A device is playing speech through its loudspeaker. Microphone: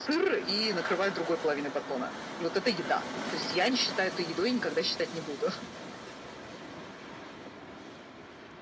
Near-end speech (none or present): none